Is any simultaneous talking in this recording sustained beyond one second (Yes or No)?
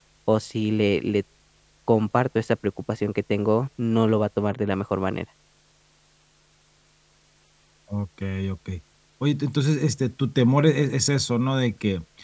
No